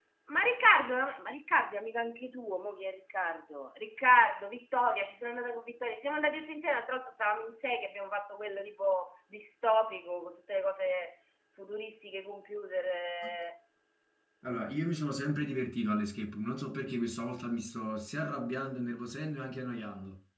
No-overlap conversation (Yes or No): Yes